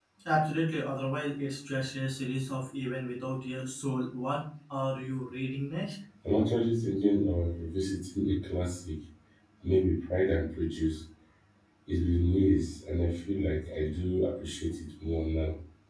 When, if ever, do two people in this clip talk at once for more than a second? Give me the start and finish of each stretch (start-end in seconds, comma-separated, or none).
none